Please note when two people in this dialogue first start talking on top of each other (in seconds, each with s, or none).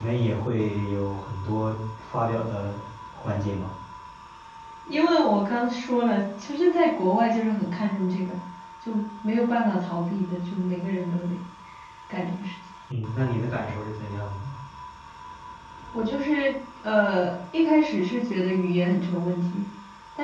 none